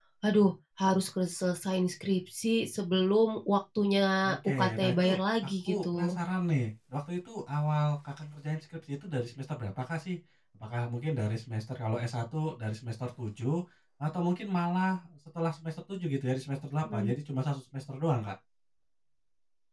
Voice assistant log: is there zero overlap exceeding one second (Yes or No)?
No